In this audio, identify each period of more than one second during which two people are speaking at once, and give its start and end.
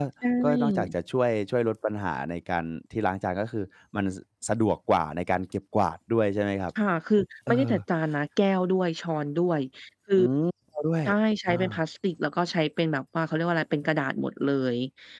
none

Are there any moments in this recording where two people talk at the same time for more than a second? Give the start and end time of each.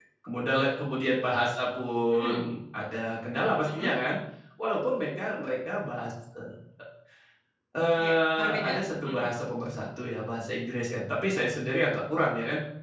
7.9-9.3

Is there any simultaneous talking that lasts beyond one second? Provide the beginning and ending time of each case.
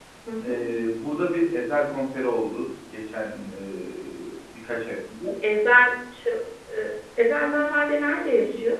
none

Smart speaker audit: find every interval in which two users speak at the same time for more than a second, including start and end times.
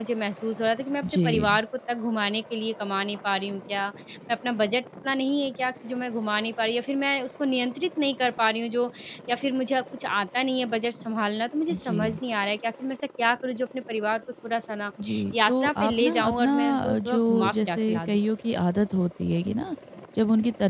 15.3-18.2

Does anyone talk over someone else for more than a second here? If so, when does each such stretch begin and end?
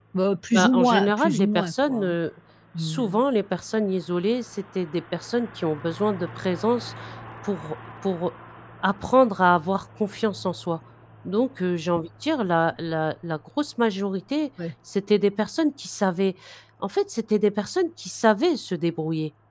0.5-2.2

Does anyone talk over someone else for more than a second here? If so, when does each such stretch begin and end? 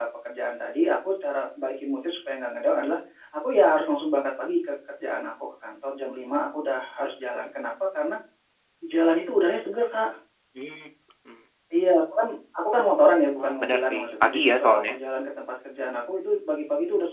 13.4-15.0

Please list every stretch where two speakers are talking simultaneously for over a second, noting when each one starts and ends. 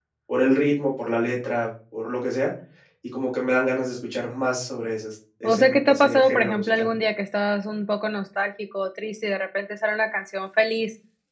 5.4-6.9

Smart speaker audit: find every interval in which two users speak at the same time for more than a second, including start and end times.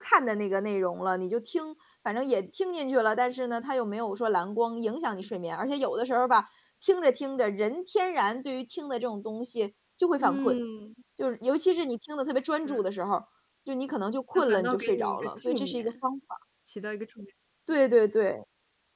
14.3-15.9

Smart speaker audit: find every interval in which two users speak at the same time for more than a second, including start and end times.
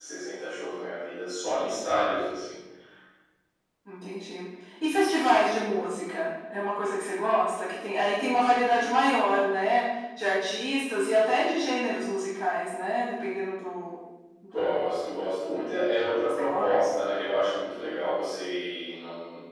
none

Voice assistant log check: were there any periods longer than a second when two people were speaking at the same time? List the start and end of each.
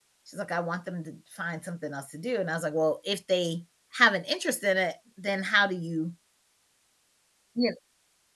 none

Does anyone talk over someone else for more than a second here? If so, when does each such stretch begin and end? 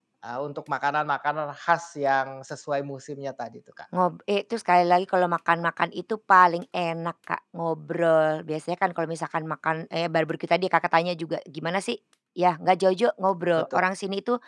none

